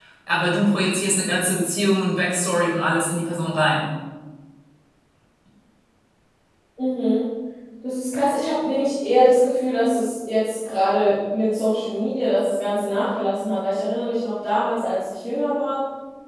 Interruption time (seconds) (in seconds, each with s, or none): none